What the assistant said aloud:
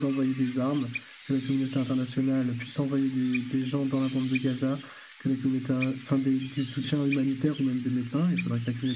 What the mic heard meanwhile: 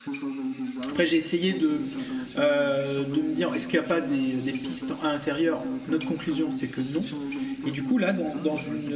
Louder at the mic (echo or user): user